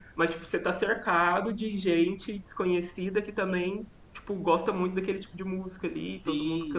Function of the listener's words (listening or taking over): taking over